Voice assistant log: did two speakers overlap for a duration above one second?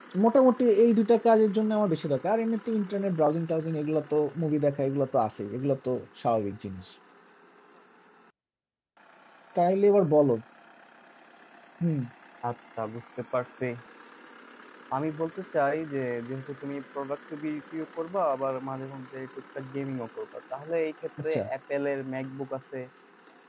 No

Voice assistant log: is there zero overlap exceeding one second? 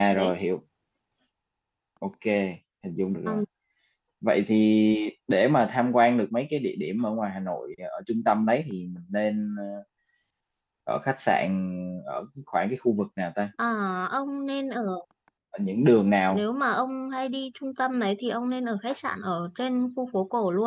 Yes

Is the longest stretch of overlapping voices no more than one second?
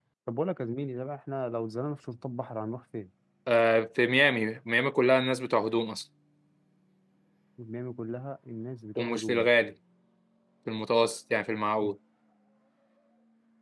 Yes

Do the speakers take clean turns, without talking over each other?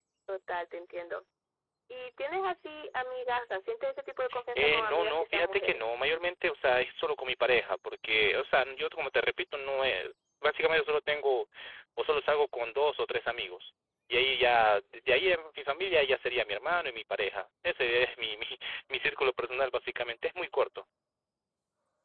No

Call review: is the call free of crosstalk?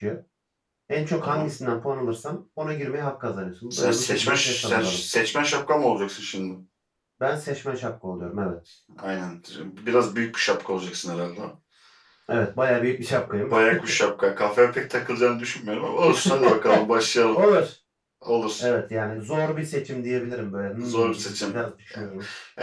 No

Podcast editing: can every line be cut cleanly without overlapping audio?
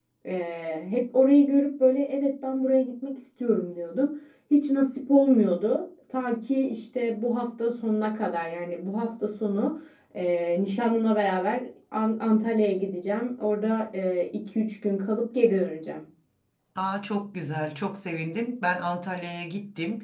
Yes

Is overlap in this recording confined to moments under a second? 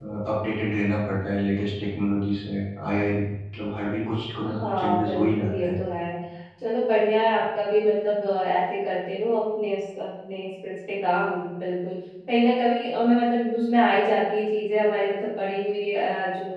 No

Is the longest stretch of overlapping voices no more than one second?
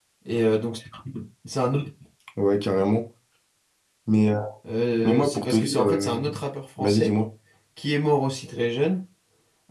No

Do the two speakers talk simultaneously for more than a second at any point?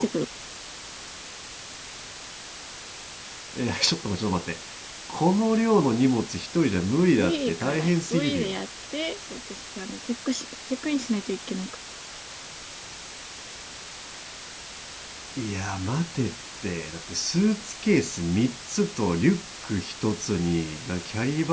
Yes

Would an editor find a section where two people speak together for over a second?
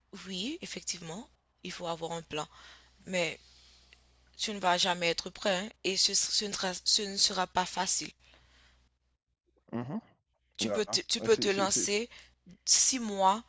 Yes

